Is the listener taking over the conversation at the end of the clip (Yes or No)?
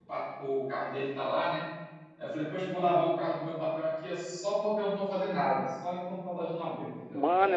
Yes